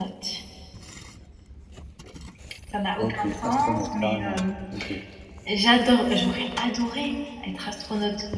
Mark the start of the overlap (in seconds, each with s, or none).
3.0 s